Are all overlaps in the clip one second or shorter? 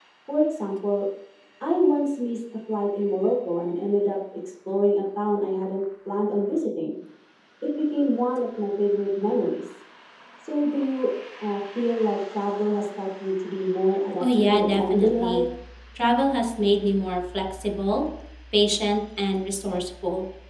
No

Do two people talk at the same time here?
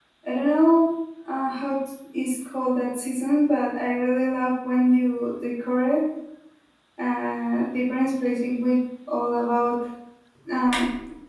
No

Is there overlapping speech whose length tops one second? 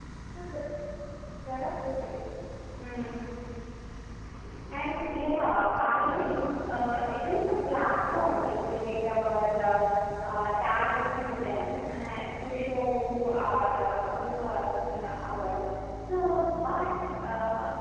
No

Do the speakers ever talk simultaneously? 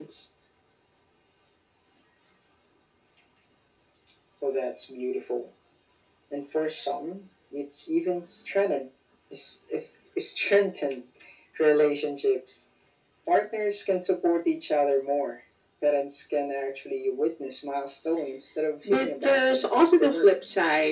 Yes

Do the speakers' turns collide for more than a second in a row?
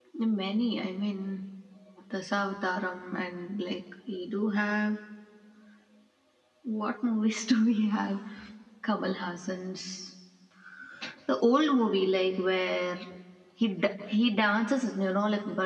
No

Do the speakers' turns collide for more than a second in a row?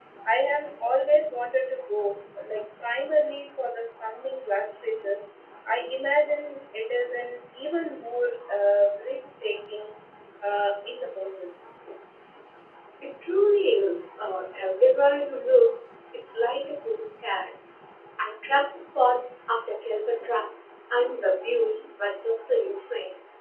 No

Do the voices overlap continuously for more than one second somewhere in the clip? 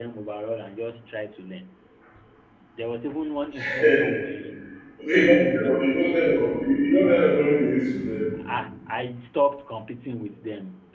No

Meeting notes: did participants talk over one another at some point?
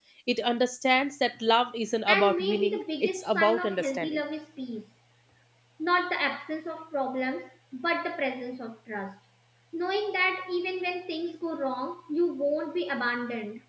Yes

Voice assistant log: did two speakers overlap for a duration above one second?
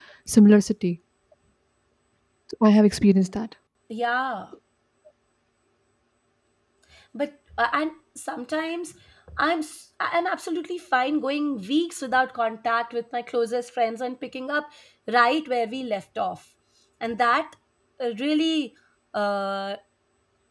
No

